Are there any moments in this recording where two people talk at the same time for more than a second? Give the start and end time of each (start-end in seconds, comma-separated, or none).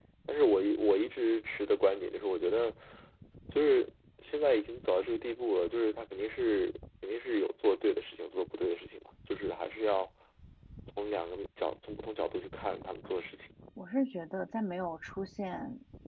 none